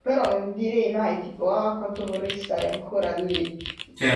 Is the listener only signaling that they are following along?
No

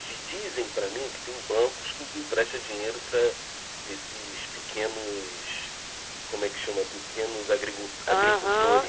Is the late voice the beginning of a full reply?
Yes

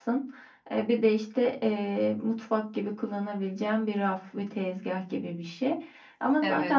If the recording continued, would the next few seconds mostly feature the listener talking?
No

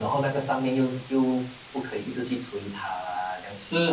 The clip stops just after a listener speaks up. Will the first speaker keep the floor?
No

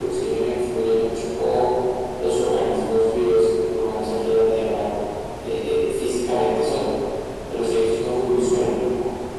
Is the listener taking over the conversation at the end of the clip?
No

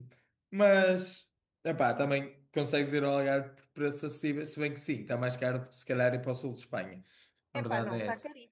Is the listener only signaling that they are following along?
No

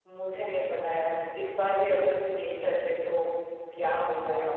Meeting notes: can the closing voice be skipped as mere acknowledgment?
No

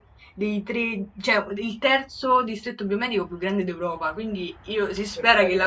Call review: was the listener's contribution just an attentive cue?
Yes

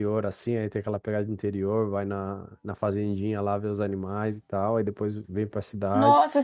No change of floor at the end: No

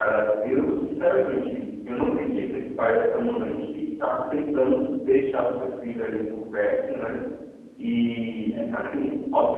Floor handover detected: No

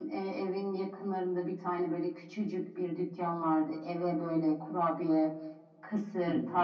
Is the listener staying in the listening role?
Yes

